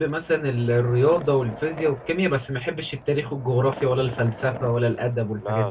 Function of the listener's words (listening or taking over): taking over